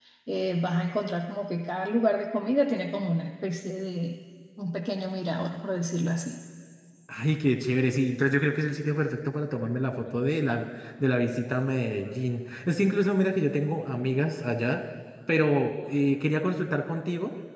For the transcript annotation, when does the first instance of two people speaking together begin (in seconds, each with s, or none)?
none